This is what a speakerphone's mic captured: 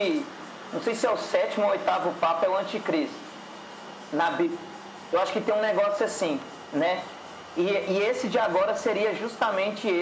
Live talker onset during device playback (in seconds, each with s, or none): none